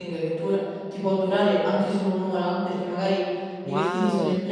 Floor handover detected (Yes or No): Yes